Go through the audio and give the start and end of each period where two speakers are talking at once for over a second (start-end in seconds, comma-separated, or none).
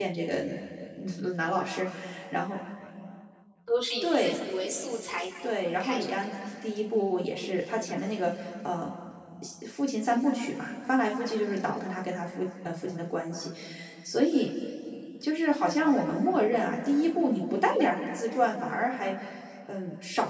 none